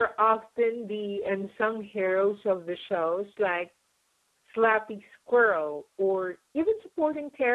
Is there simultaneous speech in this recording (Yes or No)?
No